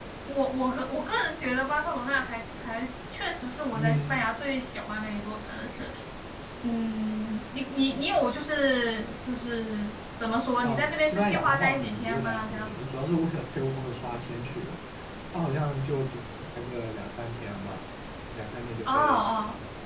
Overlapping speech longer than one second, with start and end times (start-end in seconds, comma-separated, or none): 10.6-12.7